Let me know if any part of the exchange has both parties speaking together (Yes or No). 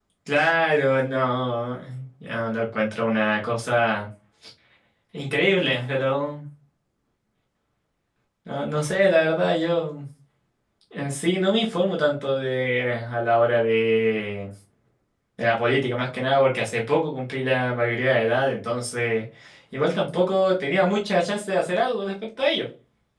No